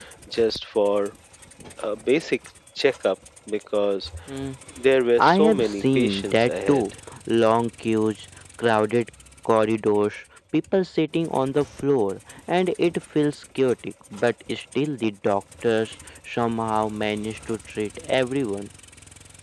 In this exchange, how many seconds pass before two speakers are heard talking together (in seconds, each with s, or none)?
5.2 s